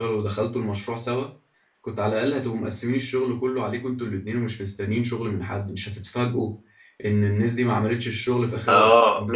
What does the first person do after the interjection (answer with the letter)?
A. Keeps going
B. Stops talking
B